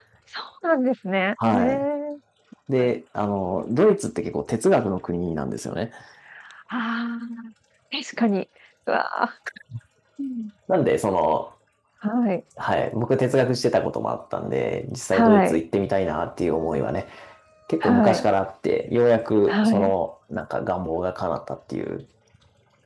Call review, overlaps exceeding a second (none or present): none